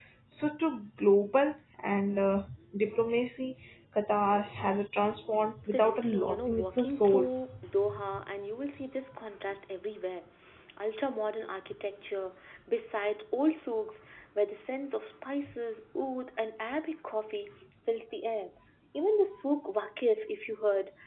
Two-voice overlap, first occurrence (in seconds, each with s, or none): 5.7 s